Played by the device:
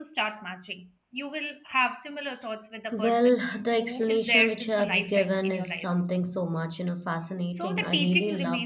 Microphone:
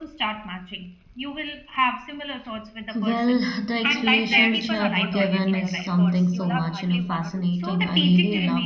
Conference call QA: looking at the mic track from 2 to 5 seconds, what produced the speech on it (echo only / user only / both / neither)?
both